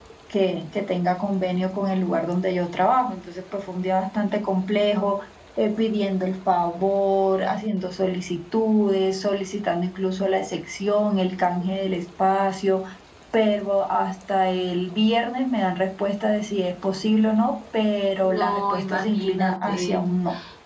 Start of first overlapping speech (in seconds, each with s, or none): 18.2 s